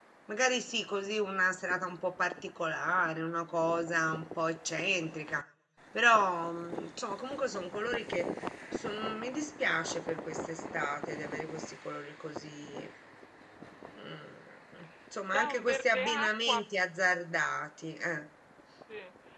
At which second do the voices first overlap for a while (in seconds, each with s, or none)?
15.3 s